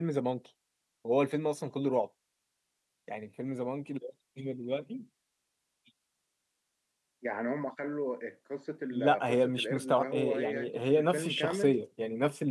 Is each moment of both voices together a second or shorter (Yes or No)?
No